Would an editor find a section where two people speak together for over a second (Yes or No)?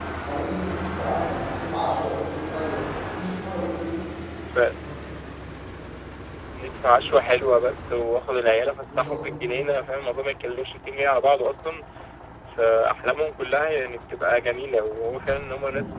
No